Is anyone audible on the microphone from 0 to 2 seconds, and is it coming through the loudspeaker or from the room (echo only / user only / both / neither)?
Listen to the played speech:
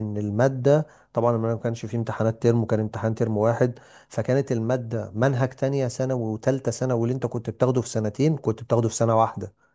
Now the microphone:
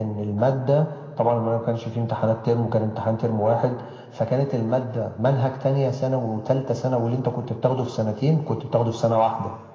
echo only